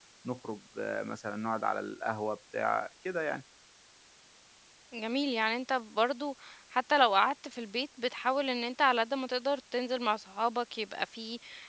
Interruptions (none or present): none